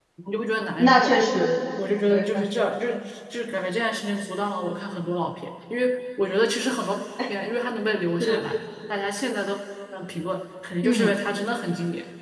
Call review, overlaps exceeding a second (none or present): none